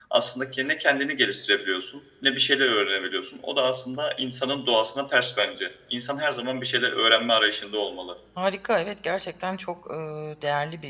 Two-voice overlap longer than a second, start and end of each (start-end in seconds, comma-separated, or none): none